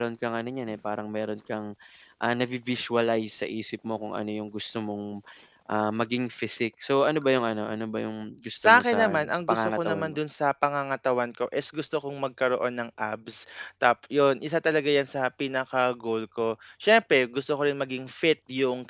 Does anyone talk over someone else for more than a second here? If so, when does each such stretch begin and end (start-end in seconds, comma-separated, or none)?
8.6-10.2